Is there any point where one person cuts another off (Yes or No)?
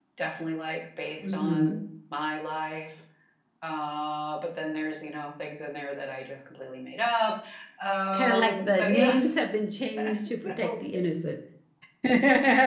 Yes